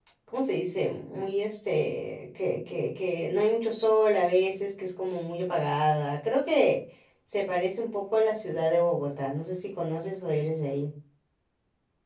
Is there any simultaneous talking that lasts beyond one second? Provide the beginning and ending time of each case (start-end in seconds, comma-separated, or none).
none